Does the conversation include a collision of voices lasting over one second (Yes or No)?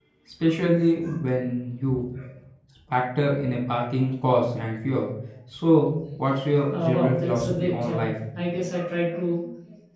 Yes